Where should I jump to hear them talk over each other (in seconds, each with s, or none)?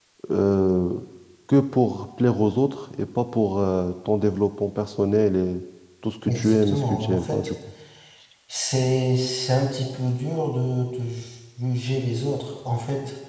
6.2 s